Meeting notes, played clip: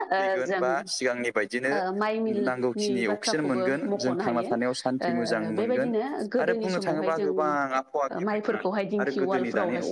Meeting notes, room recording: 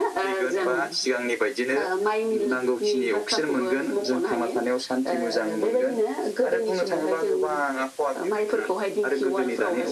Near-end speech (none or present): present